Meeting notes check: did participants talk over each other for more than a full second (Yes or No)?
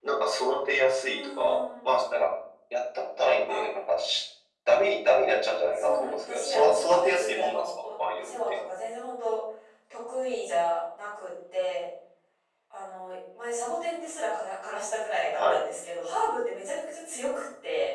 Yes